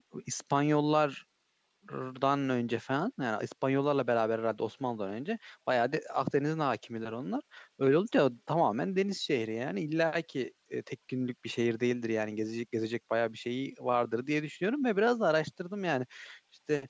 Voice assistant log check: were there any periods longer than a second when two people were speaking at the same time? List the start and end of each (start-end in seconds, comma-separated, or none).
none